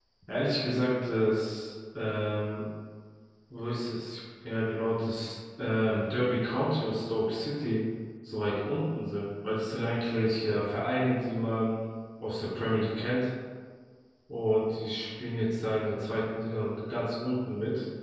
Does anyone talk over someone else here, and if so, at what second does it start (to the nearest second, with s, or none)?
none